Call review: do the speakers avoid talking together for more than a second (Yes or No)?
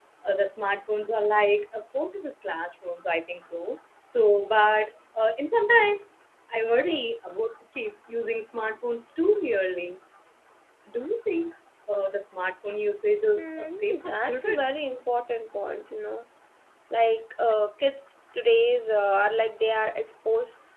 No